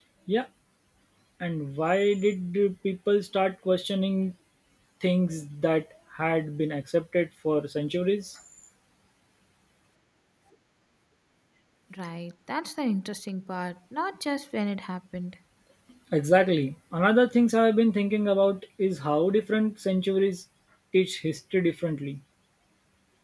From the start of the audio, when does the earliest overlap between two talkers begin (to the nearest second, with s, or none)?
none